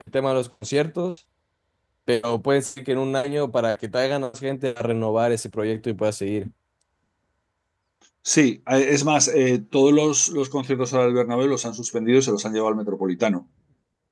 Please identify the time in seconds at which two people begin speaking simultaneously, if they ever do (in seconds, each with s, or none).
none